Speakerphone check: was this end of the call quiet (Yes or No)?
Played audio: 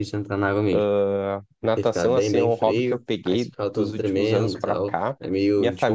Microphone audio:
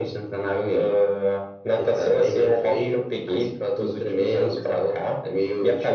Yes